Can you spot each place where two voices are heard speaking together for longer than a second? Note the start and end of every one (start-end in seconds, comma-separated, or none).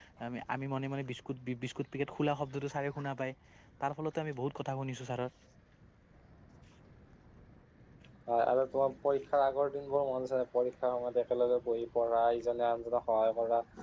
none